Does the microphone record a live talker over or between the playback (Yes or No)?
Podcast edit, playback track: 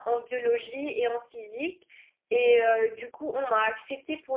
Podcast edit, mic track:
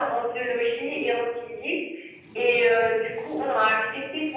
No